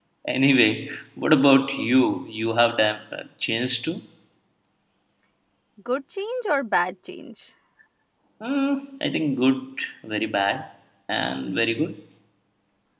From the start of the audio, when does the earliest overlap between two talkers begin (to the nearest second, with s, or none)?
none